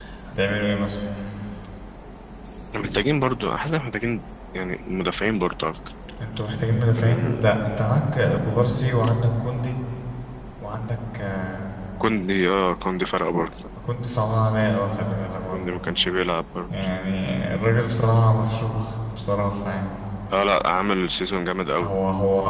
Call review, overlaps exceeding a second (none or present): none